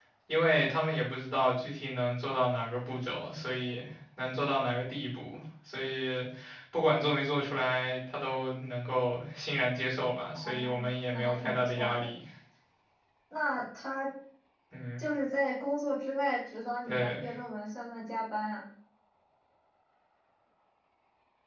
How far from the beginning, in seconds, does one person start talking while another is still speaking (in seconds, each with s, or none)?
10.3 s